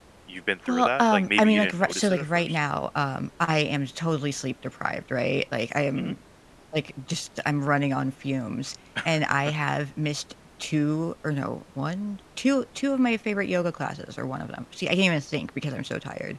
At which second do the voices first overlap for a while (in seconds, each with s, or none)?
0.7 s